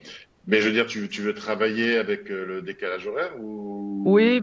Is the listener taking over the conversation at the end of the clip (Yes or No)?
Yes